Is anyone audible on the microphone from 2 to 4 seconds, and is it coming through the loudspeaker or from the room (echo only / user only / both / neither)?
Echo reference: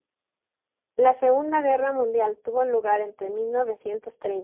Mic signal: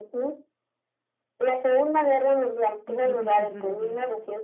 both